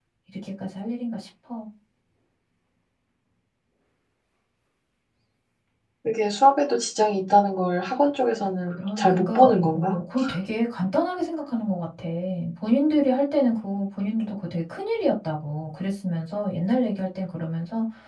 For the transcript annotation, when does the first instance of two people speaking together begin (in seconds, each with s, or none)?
8.7 s